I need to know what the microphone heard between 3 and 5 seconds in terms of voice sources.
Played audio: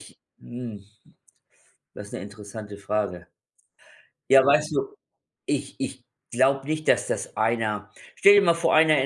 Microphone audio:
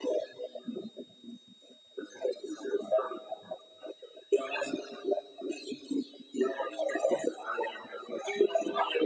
echo only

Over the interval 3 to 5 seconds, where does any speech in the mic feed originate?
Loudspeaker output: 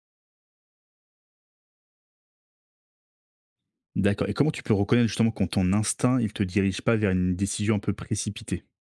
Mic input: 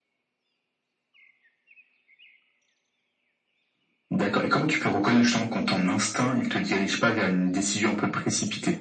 echo only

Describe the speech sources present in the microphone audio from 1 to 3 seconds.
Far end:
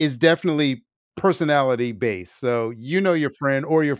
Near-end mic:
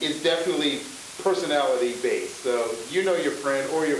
echo only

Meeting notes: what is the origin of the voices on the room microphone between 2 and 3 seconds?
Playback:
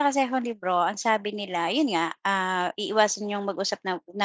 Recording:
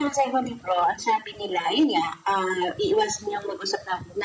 echo only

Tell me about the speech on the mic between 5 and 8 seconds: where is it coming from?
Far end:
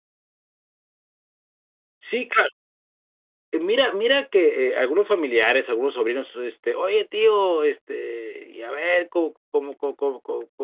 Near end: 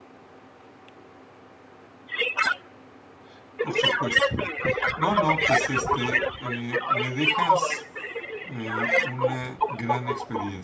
both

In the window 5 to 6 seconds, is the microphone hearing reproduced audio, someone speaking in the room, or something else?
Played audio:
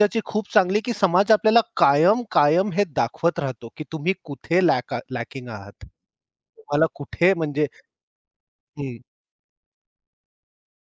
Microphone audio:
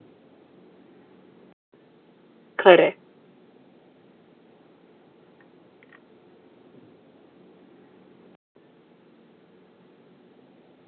neither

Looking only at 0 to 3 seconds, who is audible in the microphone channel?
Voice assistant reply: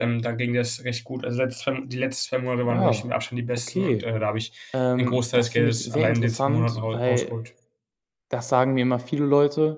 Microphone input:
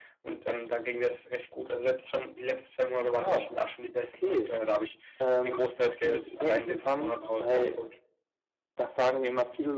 echo only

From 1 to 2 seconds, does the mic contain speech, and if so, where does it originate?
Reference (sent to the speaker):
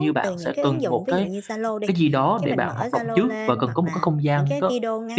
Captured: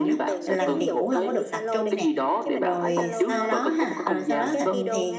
both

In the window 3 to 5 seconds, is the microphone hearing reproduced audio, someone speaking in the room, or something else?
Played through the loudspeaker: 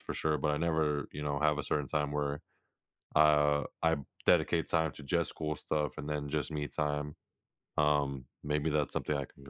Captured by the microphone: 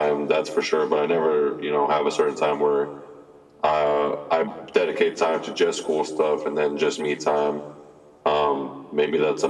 echo only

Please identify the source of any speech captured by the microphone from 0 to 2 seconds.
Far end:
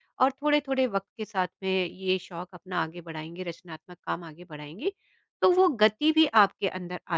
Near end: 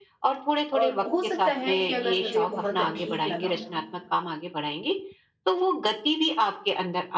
both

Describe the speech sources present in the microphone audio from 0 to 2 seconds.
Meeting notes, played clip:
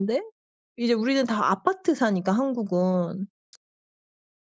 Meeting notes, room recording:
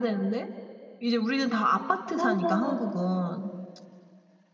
echo only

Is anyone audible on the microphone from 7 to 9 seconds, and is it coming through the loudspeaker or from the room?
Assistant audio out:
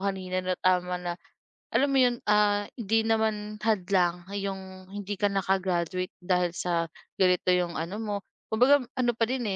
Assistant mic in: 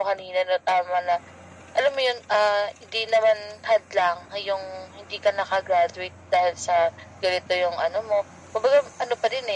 echo only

